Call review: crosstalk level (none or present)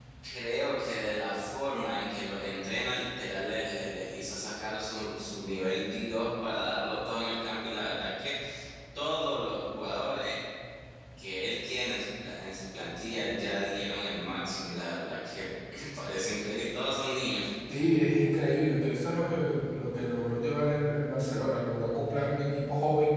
none